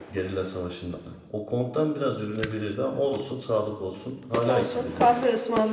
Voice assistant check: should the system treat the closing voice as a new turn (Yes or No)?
Yes